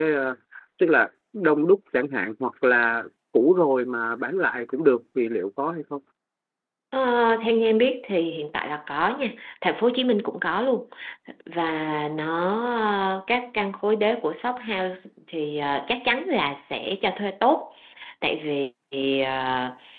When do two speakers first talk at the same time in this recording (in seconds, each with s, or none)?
none